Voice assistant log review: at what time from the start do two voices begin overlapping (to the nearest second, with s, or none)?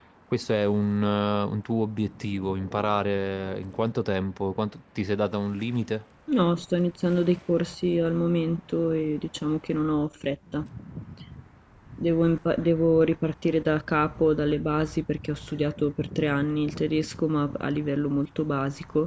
none